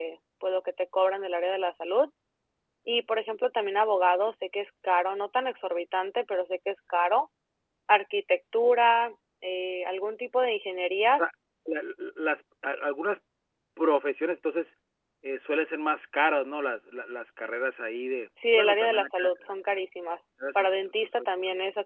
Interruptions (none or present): present